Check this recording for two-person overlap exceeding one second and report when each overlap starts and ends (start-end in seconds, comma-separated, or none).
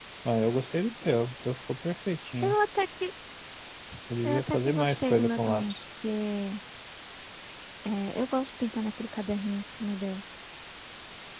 4.2-5.7